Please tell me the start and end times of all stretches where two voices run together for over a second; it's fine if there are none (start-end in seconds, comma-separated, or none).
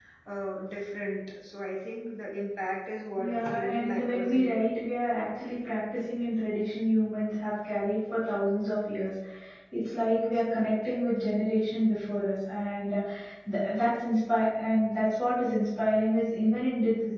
3.2-4.6